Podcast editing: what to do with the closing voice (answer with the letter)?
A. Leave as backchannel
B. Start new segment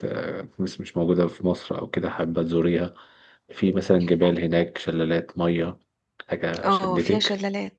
B